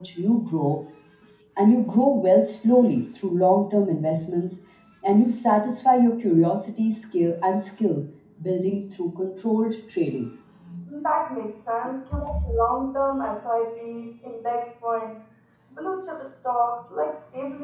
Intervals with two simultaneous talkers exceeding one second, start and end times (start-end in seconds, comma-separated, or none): none